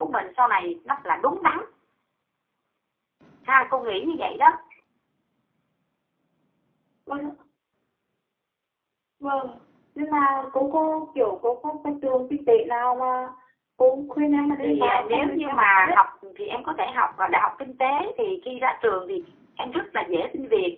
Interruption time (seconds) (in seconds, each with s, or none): 14.6 s